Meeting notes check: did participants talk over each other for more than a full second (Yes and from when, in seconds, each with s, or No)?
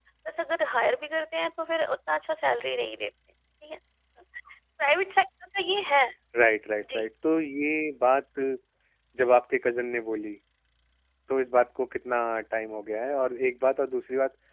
No